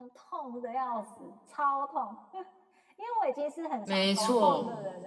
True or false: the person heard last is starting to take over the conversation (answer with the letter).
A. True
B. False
B